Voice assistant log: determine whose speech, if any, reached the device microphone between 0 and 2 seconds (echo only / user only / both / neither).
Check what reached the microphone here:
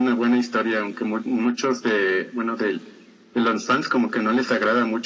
echo only